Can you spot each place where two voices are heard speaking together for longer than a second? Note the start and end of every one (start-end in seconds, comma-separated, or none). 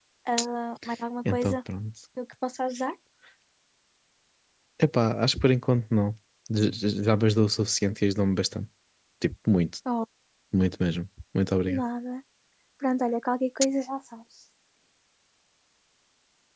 none